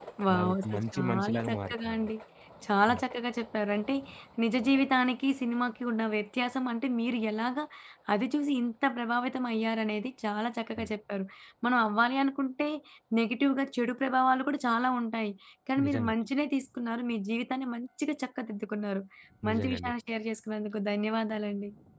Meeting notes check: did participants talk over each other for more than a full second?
Yes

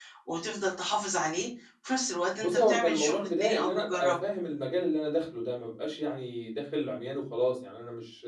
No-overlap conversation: No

